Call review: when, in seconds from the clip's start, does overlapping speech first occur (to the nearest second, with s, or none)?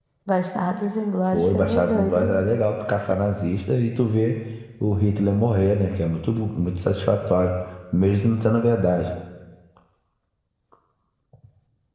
1 s